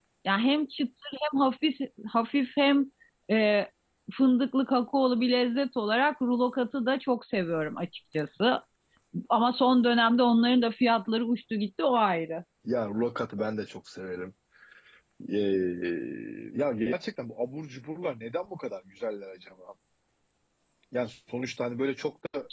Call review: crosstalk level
none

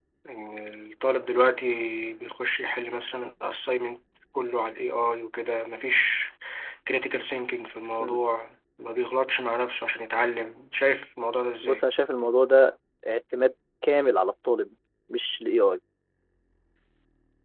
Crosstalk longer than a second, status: none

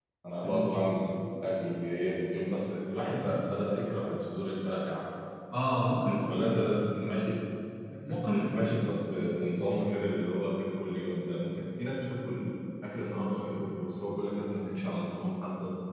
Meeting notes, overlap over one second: none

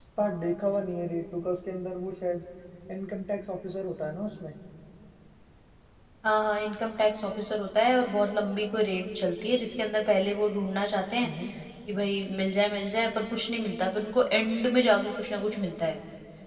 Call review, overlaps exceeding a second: none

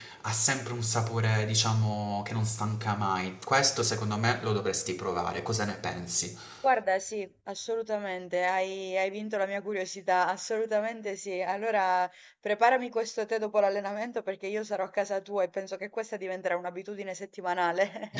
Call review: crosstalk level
none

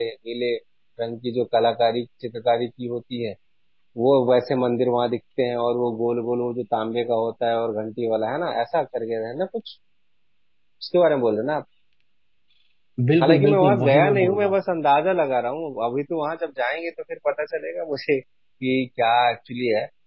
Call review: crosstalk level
present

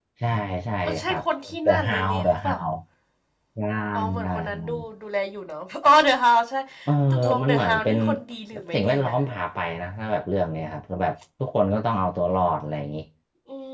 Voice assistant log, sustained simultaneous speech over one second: present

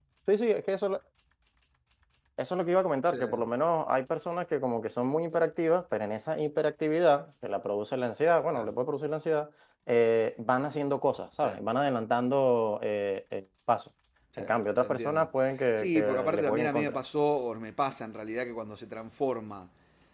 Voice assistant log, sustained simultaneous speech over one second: present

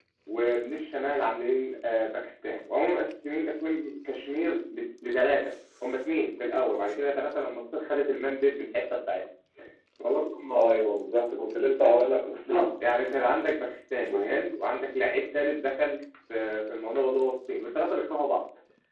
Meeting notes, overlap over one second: none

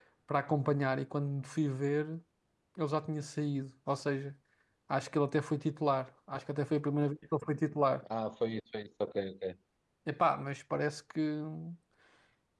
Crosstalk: none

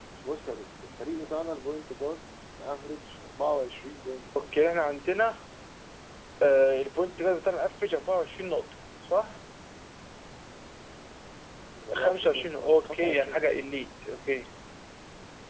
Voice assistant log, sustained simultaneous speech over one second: present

